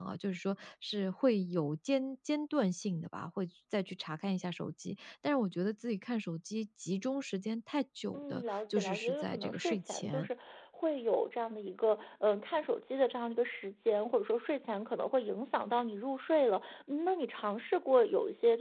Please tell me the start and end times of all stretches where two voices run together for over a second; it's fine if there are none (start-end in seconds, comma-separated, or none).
8.1-10.3